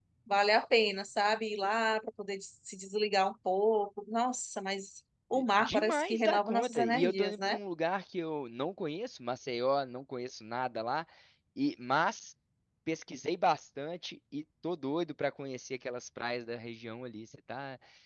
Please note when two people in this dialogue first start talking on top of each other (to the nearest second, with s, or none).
5 s